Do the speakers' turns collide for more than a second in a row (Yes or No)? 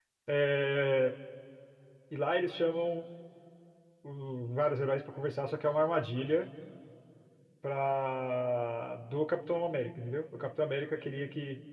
No